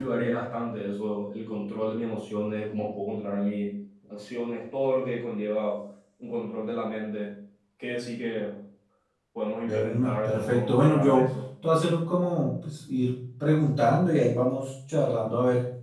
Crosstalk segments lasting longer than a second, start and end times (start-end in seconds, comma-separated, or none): 9.6-11.3